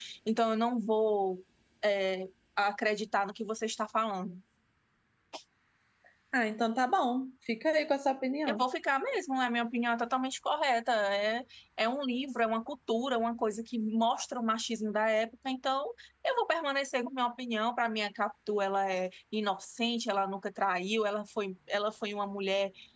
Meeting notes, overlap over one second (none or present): none